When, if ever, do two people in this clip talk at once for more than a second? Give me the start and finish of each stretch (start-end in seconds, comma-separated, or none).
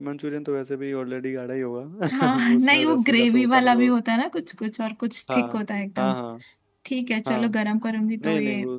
2.1-3.9